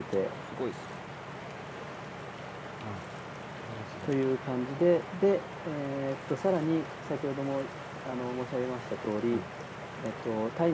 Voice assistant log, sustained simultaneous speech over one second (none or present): none